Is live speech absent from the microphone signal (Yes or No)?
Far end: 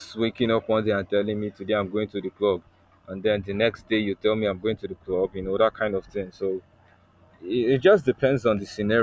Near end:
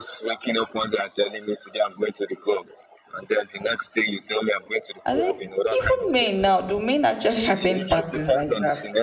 No